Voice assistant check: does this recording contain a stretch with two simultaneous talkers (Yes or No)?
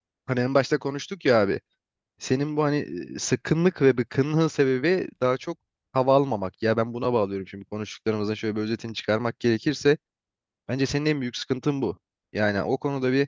No